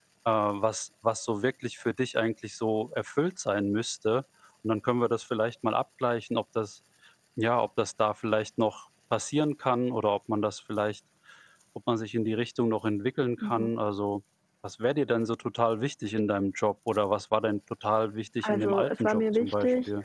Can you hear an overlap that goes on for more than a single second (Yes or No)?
Yes